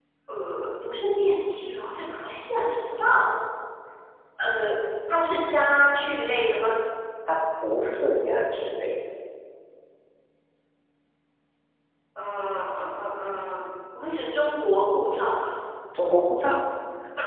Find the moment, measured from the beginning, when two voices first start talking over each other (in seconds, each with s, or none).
none